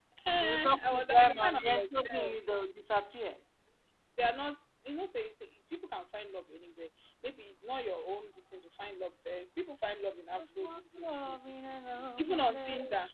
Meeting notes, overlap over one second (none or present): present